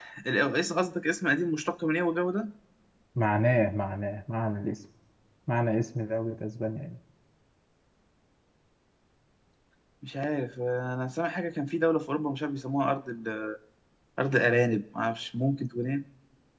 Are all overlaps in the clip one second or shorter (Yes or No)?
Yes